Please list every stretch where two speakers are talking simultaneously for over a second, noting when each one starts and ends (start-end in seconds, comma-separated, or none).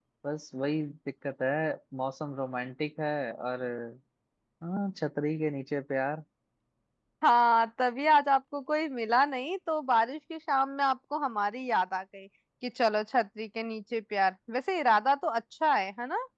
none